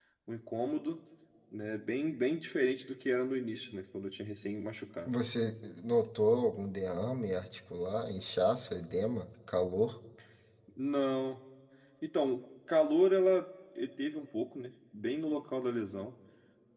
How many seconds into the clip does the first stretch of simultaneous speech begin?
none

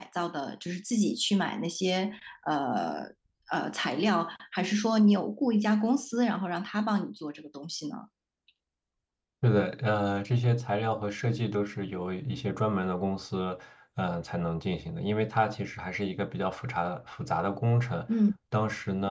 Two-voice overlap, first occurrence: none

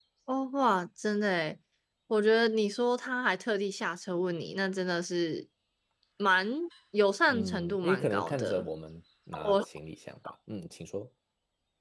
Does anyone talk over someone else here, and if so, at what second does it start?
7 s

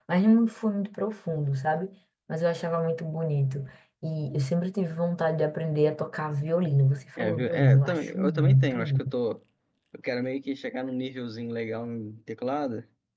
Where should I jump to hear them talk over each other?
7 s

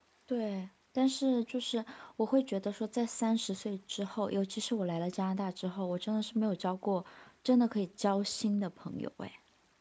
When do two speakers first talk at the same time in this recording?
none

